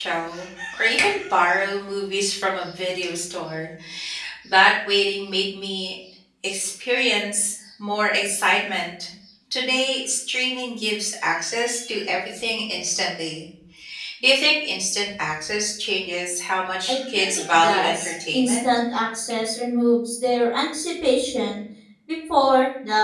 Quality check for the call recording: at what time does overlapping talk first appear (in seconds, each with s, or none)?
16.9 s